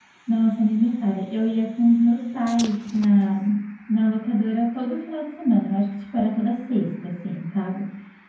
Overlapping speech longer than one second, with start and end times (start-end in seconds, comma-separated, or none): none